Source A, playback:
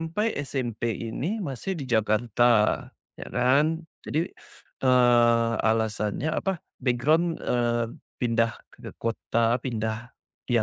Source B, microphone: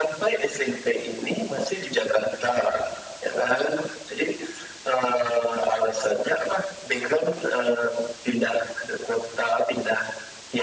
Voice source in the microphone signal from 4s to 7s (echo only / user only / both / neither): echo only